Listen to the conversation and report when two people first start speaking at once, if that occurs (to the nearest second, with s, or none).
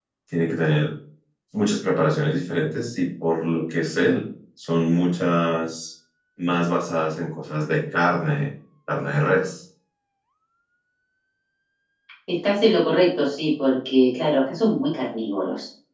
none